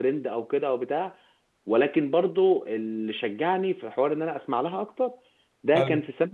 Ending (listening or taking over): listening